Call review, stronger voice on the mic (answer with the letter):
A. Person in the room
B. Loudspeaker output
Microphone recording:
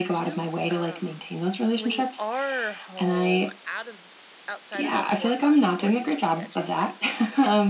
B